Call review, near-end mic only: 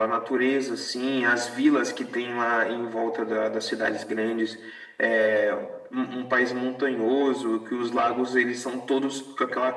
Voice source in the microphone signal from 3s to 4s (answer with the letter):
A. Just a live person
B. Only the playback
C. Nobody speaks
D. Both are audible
B